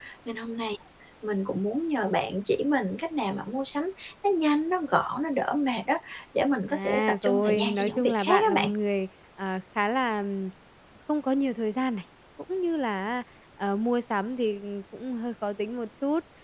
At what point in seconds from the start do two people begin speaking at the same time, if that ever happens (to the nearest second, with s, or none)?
7 s